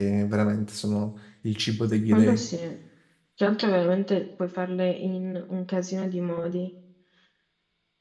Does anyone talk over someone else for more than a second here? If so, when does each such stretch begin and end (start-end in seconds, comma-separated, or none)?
none